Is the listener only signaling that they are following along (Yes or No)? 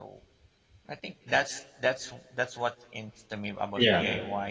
Yes